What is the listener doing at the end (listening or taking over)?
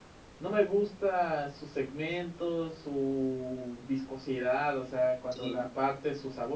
listening